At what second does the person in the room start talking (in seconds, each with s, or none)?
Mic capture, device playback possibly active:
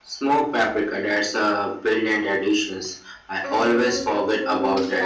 3.4 s